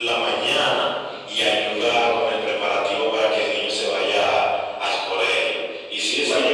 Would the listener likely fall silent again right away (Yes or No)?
No